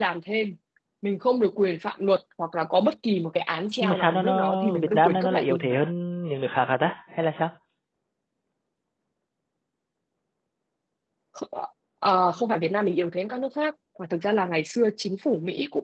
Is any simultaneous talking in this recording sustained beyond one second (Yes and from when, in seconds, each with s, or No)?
Yes, from 3.8 s